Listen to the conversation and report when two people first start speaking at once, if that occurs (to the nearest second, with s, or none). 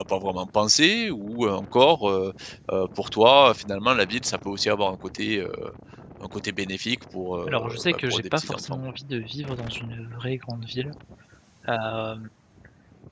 7 s